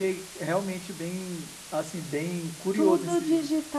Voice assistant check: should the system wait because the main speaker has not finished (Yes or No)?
No